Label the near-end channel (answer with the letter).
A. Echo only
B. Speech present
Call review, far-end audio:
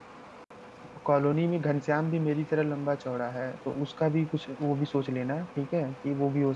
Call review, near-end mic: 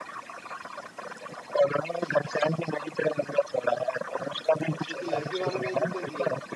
B